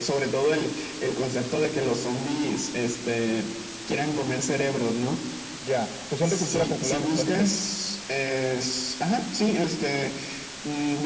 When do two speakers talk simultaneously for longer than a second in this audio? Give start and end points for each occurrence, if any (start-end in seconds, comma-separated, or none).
6.2-7.5